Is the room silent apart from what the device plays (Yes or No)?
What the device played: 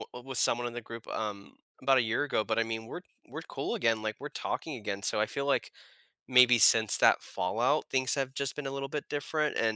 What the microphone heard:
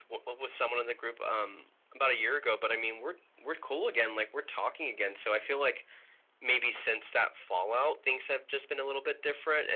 Yes